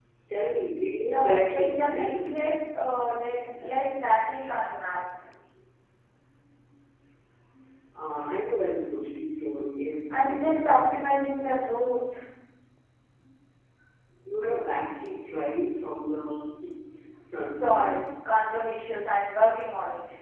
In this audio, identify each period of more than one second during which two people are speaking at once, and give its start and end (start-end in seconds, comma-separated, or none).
1.0-2.3